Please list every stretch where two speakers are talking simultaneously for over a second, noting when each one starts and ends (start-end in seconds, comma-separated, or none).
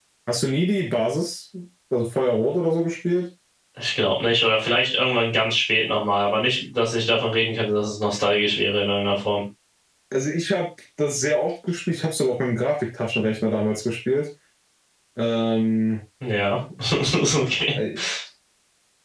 none